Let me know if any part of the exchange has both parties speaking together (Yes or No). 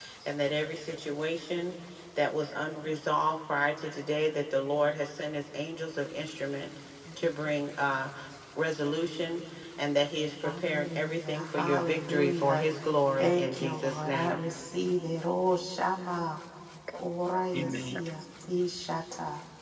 Yes